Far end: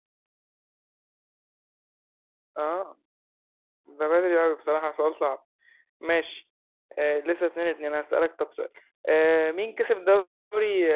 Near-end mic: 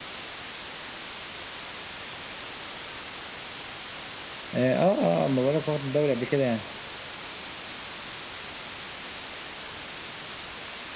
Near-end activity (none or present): present